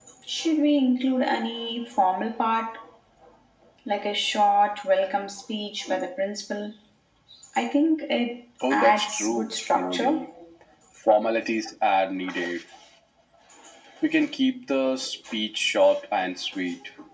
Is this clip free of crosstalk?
No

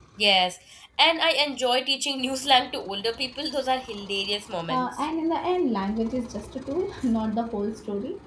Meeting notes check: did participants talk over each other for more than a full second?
No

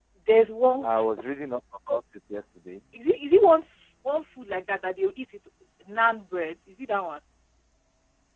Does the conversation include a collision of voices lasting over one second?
No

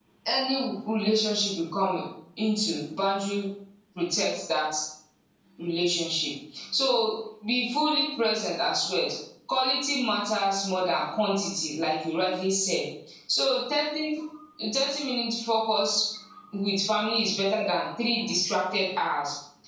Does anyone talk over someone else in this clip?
No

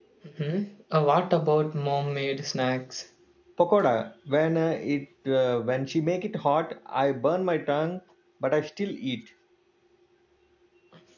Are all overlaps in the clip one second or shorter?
Yes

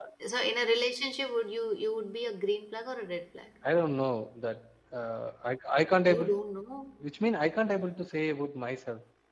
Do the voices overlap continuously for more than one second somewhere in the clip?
No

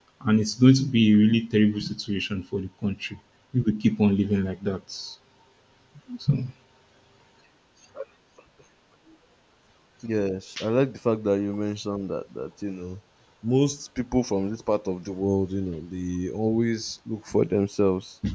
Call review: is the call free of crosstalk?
Yes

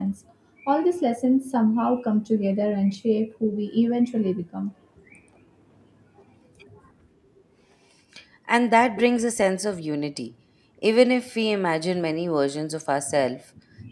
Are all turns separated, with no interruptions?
Yes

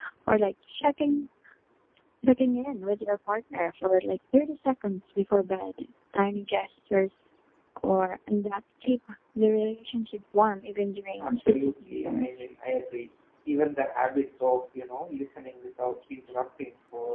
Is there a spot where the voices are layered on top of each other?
Yes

